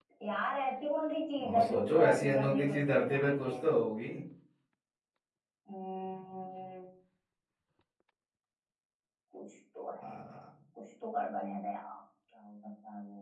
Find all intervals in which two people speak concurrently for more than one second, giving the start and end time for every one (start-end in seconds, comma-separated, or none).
1.4-3.5